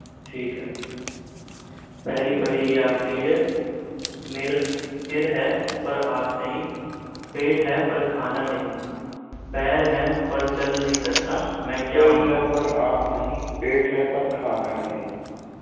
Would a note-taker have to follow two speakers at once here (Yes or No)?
Yes